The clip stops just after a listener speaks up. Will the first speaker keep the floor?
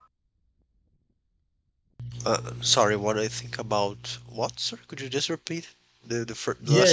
No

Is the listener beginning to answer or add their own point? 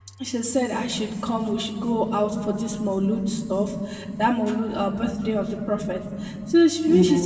No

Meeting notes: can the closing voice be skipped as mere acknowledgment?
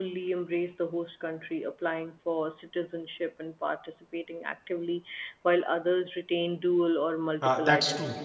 No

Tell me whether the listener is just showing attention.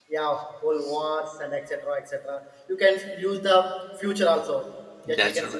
Yes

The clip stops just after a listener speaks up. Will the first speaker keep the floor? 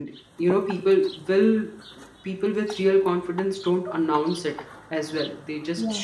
Yes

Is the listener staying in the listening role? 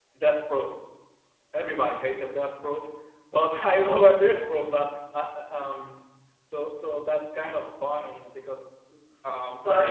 Yes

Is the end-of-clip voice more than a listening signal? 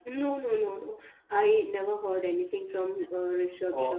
Yes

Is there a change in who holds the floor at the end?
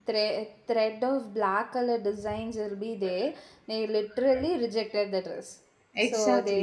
Yes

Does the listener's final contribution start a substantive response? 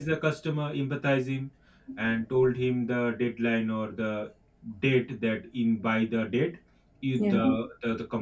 No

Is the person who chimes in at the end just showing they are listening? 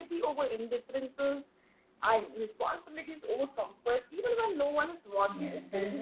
No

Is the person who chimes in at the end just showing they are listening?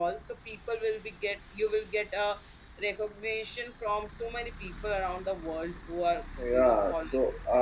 No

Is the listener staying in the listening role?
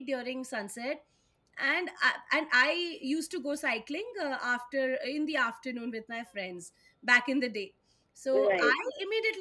Yes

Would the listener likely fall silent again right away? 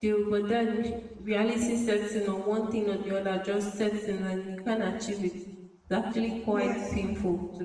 Yes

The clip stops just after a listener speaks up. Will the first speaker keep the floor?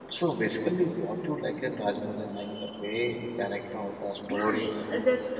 No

